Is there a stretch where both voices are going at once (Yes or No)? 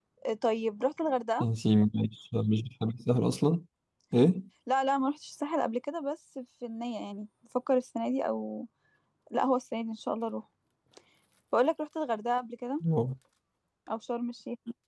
No